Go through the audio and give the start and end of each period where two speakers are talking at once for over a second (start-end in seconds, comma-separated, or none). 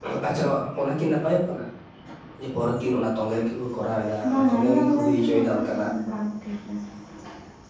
4.3-5.7